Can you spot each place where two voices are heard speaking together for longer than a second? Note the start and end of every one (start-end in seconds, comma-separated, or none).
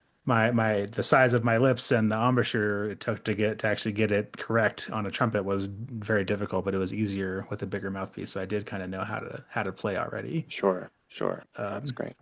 none